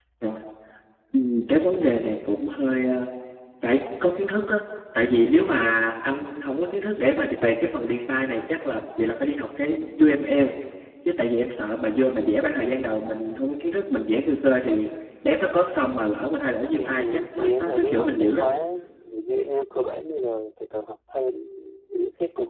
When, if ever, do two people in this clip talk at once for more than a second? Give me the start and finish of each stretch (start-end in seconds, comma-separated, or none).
16.7-18.4